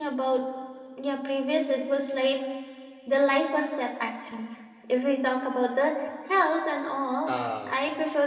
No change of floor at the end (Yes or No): Yes